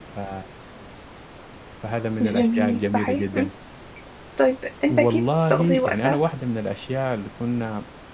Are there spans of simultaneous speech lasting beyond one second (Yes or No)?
Yes